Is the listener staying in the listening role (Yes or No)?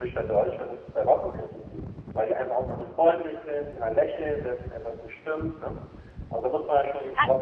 No